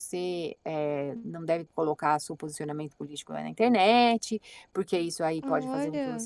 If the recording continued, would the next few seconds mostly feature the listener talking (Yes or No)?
No